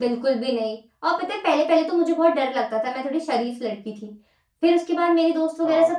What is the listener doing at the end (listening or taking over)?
listening